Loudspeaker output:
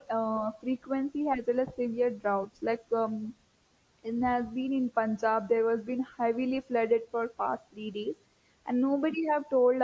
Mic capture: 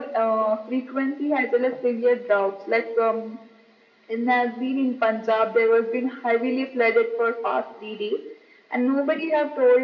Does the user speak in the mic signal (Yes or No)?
No